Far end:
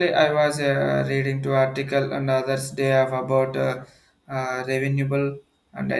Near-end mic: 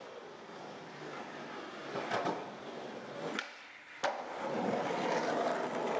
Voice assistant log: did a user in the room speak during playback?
No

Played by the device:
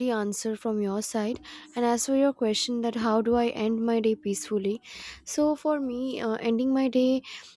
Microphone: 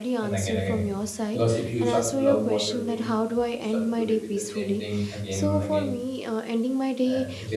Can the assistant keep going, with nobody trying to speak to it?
No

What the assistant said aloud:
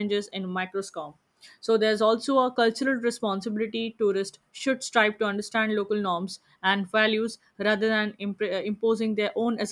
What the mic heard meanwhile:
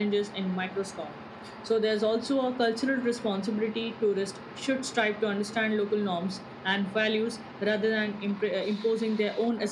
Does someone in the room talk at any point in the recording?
No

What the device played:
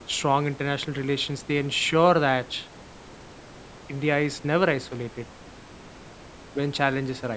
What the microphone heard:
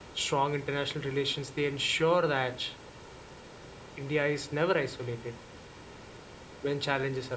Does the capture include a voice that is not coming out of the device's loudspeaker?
No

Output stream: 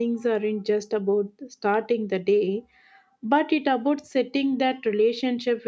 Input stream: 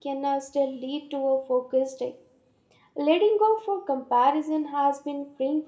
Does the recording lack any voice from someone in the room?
No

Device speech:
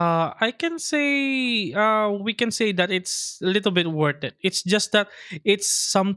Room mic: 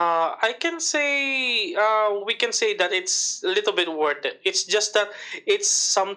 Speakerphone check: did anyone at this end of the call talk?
No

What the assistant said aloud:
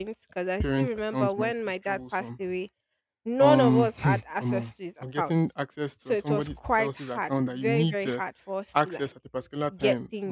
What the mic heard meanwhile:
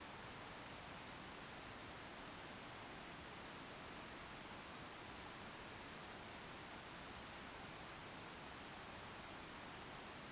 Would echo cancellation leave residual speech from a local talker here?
No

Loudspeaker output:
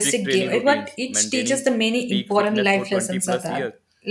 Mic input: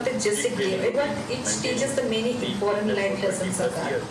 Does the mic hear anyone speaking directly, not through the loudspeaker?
No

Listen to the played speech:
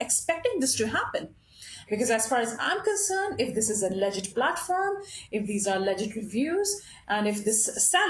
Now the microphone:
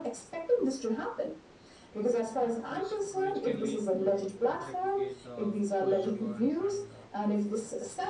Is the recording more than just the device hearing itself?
Yes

